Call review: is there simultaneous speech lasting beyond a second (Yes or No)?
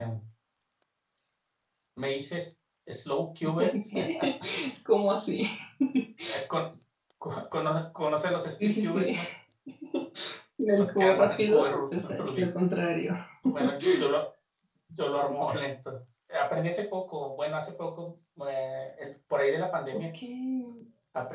Yes